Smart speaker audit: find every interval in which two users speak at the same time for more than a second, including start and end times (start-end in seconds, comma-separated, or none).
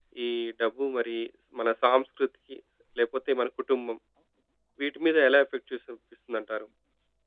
none